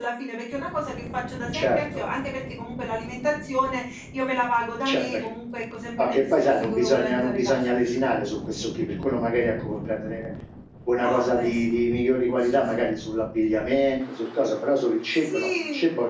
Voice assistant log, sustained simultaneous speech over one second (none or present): present